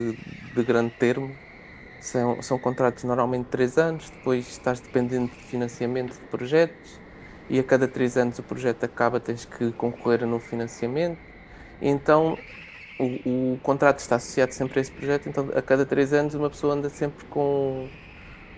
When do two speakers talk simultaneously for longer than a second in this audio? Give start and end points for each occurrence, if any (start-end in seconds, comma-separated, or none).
none